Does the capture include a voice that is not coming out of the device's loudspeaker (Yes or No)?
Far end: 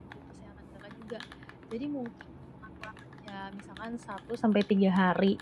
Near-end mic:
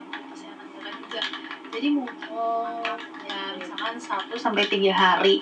Yes